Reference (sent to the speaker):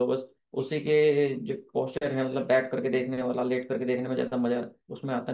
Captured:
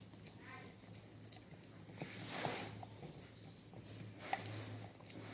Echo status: none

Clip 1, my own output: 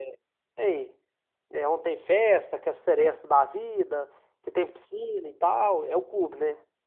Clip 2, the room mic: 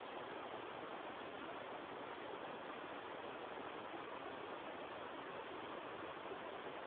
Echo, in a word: none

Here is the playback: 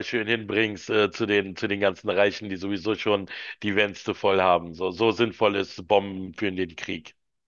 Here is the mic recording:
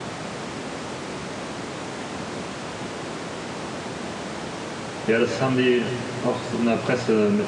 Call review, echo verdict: none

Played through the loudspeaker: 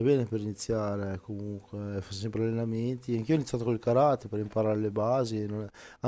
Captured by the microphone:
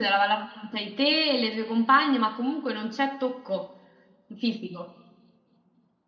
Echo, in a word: none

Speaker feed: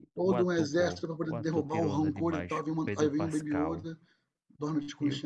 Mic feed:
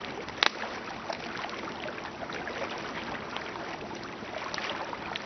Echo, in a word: none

